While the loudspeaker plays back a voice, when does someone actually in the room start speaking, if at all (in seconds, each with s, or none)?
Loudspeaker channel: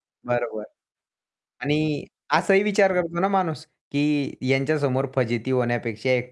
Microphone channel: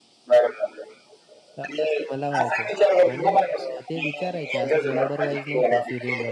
1.6 s